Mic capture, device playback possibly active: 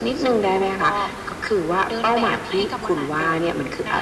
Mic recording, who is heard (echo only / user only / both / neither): echo only